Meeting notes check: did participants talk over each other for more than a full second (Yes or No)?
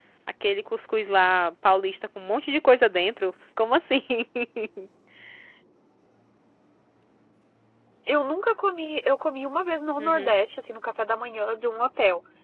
No